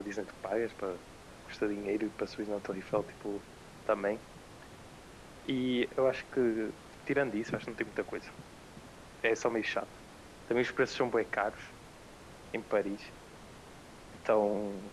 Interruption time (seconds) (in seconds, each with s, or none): none